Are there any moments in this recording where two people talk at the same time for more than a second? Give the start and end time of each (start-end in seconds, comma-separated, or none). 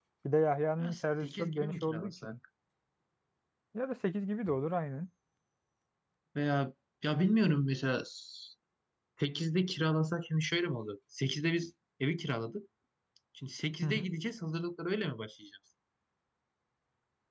0.8-2.3